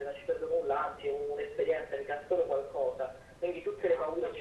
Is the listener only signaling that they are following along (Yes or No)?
Yes